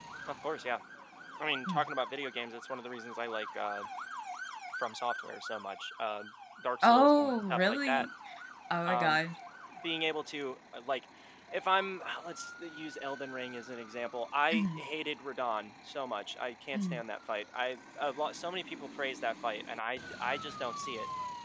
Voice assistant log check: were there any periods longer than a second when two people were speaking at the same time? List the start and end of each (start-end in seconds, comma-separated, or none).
6.8-8.1